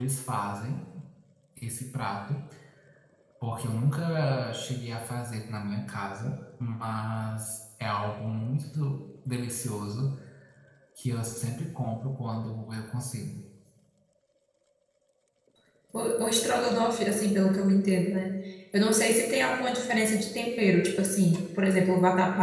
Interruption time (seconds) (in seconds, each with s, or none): none